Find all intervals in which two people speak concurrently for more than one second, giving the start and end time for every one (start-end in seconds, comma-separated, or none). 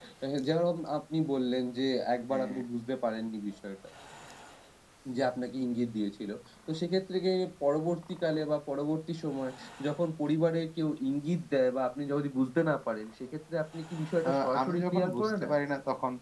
14.3-15.5